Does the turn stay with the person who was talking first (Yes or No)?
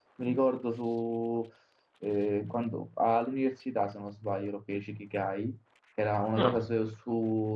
Yes